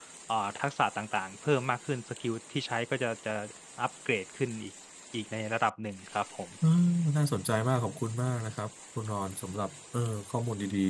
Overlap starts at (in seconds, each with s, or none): none